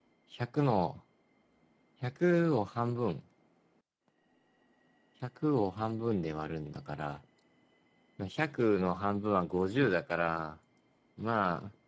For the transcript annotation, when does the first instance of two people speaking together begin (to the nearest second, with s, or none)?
none